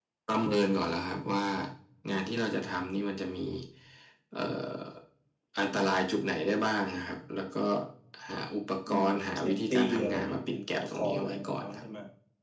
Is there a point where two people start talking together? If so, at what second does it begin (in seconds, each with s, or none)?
9.1 s